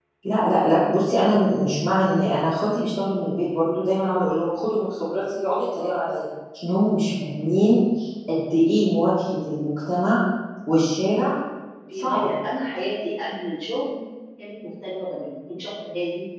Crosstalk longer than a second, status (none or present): none